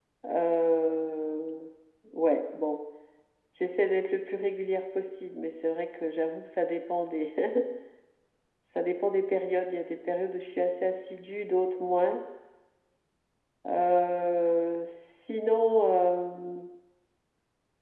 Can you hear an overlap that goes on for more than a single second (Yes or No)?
No